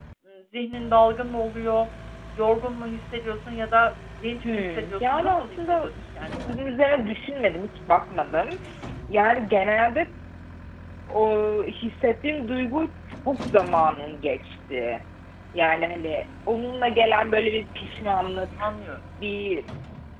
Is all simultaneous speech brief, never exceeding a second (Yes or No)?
No